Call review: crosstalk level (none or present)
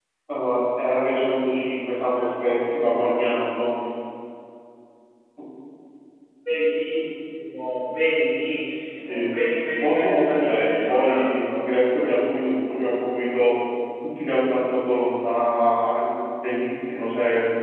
present